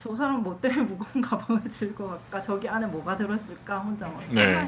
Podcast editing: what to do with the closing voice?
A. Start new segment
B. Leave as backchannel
A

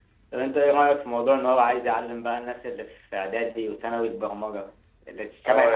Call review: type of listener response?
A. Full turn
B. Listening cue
A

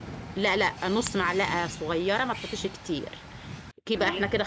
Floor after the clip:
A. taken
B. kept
B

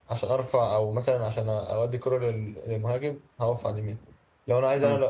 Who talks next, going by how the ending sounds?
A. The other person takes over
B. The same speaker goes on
B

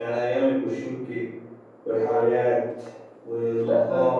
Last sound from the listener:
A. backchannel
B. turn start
B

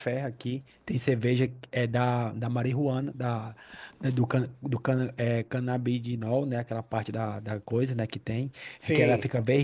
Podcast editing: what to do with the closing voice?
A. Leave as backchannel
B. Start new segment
A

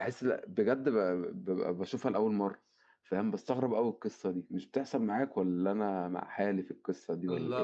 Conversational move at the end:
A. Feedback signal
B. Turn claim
B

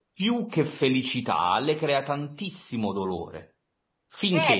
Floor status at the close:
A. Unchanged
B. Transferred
B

